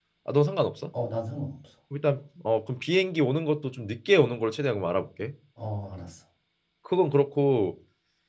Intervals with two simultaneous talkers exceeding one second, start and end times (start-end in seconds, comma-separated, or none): none